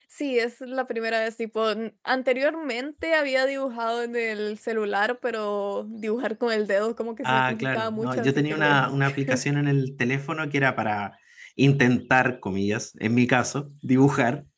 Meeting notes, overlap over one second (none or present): present